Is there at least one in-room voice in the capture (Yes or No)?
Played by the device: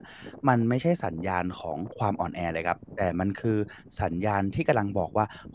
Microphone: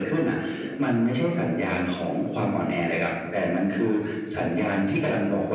No